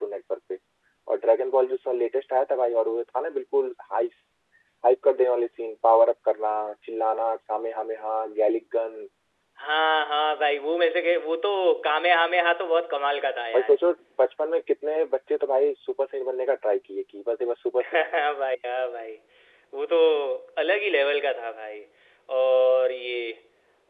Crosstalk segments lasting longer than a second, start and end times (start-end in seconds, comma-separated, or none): none